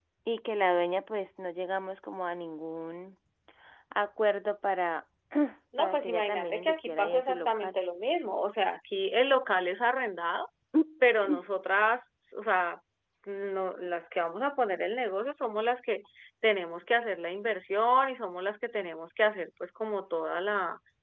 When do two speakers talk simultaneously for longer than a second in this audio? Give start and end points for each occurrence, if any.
5.8-7.8

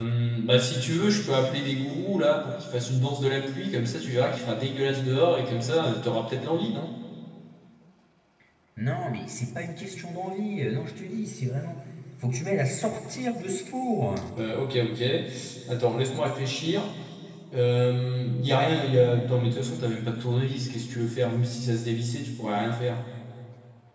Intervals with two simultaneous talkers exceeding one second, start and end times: none

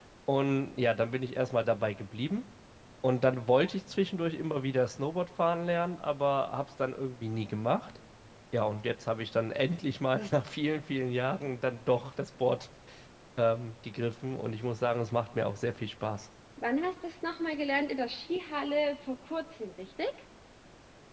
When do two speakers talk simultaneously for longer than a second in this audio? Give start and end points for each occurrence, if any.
none

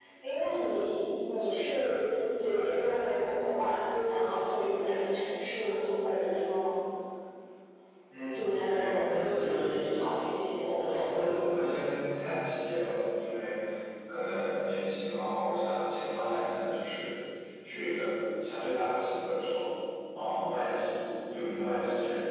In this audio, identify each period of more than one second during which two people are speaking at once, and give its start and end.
8.3-9.7

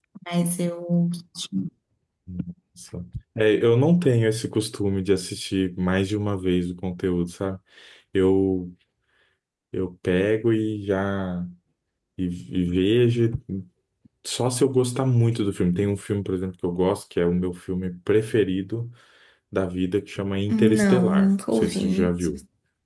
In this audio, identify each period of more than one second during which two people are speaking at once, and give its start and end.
20.5-22.1

